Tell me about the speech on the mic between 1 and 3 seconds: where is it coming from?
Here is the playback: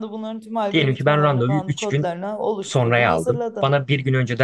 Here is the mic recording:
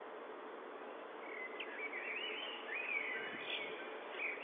neither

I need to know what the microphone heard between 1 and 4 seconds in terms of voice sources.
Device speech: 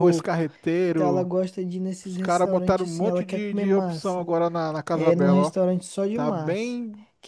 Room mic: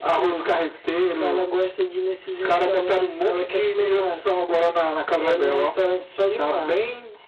echo only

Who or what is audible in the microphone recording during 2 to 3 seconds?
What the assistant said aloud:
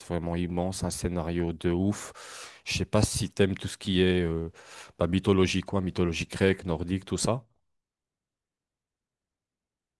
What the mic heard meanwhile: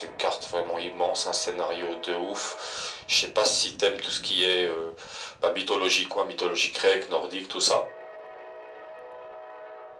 echo only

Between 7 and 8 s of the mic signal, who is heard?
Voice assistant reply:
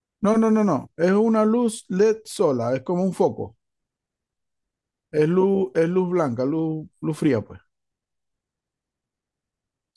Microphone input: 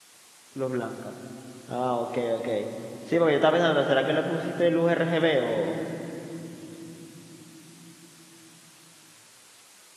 neither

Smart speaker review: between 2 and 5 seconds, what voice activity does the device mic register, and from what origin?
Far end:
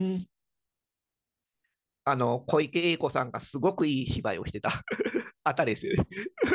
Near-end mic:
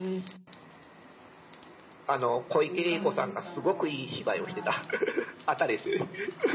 both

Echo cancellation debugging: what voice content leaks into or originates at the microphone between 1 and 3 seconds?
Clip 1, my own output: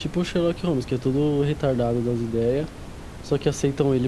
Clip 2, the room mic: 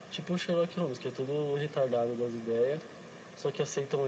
echo only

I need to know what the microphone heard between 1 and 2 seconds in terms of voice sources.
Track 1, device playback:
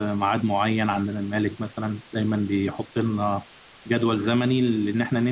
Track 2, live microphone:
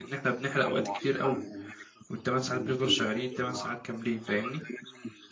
both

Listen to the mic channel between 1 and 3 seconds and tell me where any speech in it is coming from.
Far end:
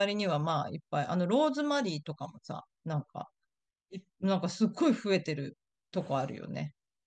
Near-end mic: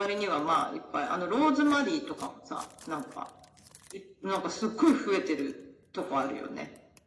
echo only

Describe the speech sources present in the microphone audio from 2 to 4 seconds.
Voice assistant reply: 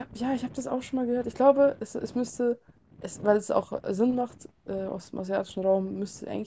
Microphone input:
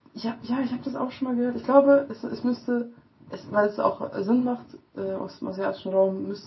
echo only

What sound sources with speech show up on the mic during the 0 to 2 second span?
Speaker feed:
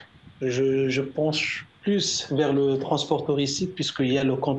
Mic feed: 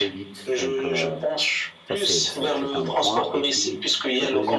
both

